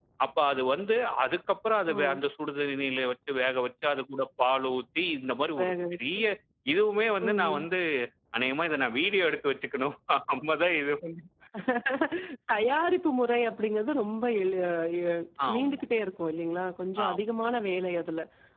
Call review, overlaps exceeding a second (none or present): none